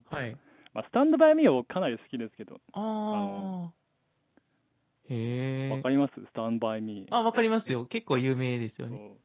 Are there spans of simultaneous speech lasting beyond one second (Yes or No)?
No